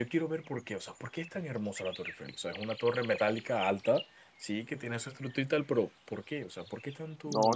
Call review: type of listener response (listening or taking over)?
taking over